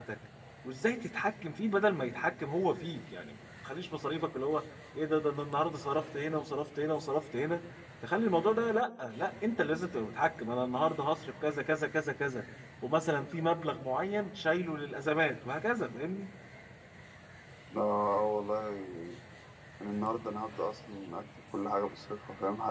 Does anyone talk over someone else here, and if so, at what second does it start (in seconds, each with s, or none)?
none